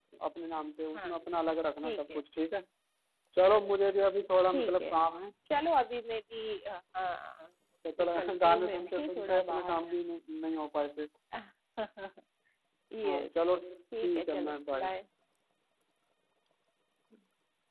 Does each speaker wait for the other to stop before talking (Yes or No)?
No